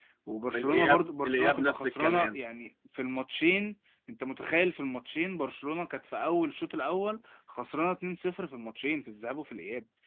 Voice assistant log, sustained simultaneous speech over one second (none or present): present